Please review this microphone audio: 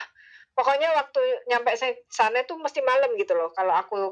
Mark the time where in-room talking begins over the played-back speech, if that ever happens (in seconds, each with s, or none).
none